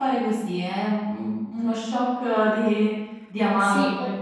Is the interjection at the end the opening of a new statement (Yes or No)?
Yes